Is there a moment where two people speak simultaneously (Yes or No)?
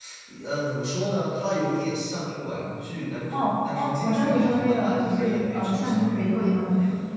Yes